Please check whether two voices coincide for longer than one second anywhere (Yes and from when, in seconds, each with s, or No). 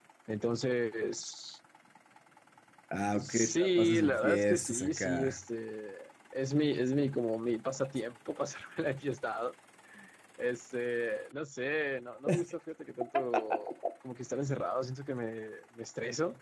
Yes, from 3.1 s